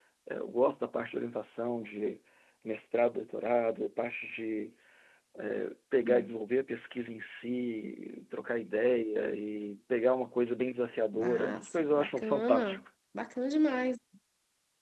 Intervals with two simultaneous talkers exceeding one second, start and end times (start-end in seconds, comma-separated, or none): 11.2-12.8